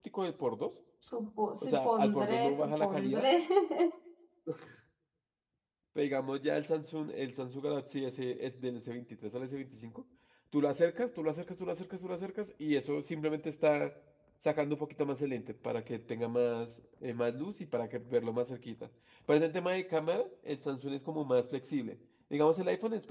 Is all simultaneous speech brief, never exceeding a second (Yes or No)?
No